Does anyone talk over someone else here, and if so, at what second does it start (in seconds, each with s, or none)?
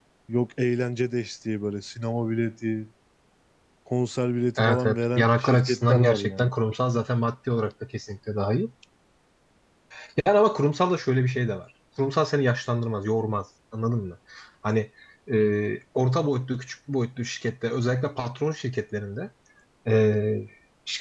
4.6 s